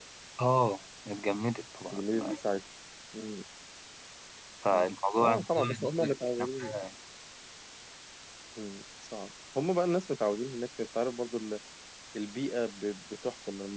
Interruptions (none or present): present